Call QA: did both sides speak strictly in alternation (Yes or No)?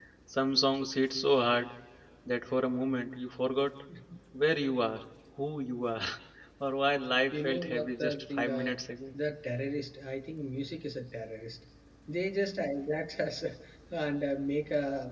No